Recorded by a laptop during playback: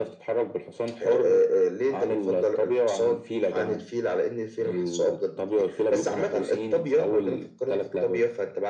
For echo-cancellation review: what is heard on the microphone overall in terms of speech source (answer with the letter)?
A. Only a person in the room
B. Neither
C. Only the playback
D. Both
C